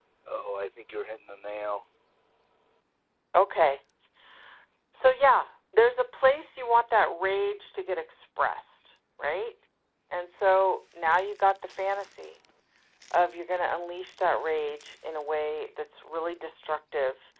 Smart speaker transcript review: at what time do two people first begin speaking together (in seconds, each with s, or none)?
none